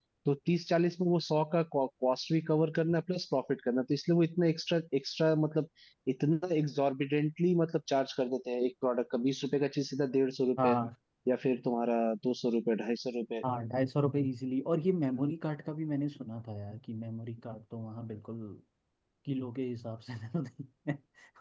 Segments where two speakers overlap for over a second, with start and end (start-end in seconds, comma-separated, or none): none